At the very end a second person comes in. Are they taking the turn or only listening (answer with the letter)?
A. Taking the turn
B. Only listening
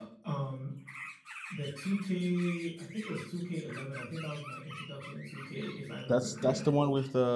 A